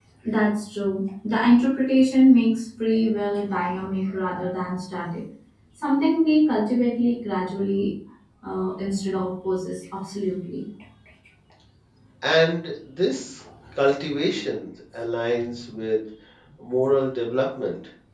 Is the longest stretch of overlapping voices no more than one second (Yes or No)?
Yes